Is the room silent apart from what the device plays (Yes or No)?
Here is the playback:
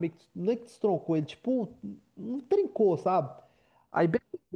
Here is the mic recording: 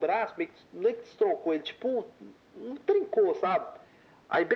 Yes